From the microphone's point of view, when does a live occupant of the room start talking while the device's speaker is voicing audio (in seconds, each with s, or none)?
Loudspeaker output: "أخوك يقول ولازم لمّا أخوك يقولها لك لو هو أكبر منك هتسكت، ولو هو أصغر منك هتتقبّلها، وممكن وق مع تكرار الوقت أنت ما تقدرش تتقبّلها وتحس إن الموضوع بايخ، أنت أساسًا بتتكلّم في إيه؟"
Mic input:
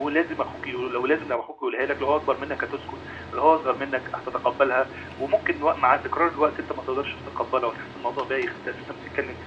none